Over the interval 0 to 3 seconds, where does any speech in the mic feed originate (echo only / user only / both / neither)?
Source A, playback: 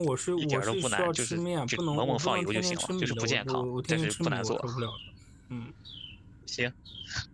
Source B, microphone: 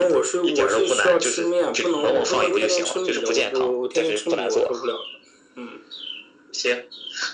echo only